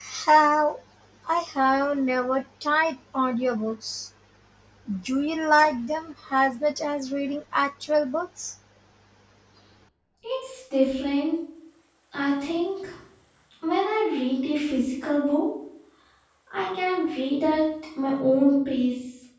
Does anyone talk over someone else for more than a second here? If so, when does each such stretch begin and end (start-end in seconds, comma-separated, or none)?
none